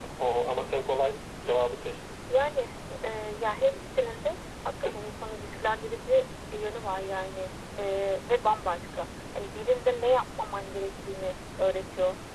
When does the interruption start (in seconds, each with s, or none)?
none